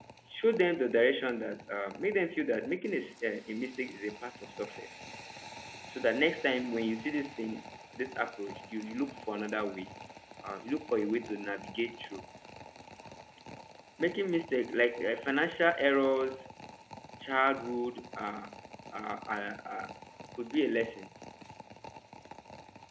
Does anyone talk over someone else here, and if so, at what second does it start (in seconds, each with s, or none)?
none